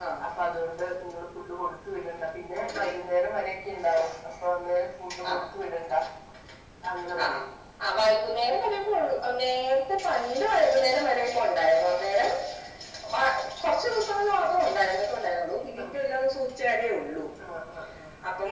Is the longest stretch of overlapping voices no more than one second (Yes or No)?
Yes